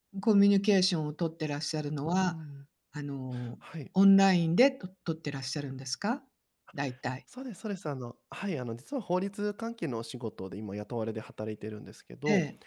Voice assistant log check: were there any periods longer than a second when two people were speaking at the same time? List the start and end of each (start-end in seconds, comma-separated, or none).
none